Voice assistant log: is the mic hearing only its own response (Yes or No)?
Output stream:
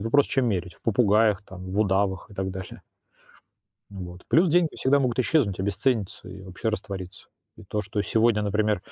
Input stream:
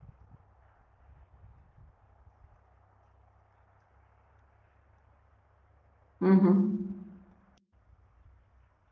No